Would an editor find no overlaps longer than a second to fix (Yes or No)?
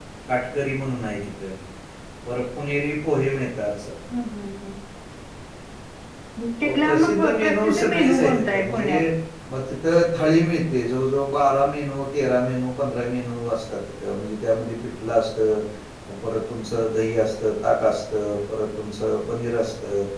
No